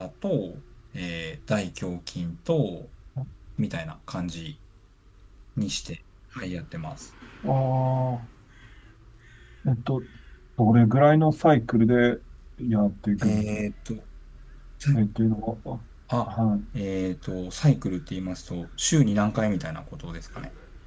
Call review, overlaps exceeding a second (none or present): none